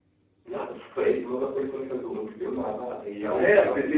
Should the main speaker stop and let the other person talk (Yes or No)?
Yes